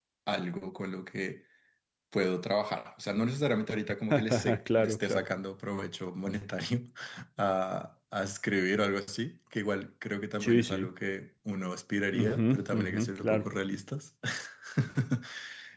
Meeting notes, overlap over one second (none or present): present